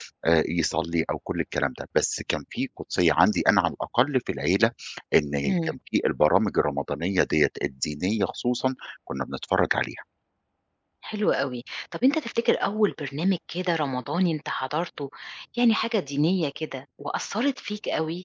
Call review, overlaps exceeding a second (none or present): none